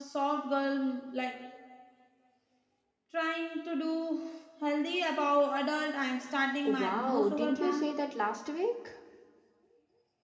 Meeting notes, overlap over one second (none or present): present